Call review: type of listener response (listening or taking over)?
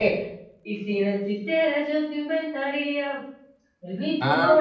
taking over